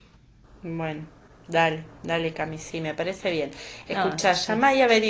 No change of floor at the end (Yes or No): Yes